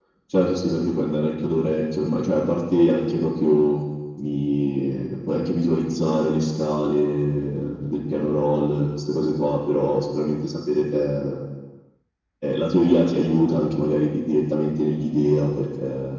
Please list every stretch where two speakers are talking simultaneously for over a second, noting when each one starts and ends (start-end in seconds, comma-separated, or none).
none